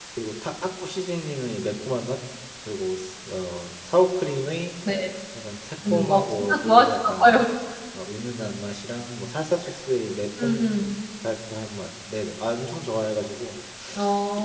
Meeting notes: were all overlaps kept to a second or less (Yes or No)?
No